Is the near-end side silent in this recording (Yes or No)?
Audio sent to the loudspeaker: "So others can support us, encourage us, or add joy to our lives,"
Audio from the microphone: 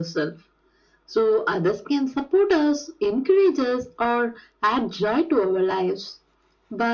Yes